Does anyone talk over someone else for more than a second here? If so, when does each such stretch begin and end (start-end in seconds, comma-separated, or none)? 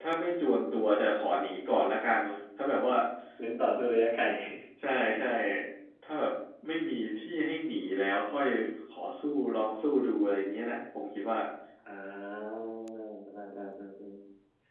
none